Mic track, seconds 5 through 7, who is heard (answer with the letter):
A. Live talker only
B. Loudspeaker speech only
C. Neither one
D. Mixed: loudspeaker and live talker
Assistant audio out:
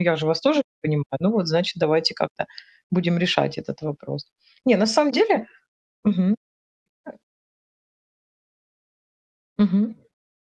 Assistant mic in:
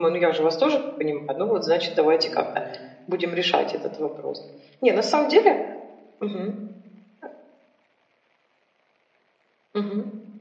B